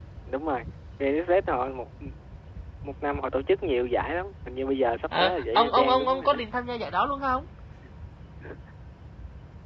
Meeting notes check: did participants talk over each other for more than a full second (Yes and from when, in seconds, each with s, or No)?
Yes, from 5.1 s